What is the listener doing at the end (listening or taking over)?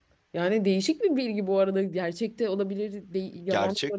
taking over